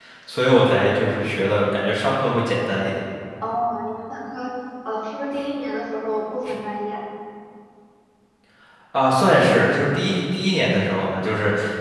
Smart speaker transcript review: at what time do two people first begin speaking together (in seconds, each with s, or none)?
none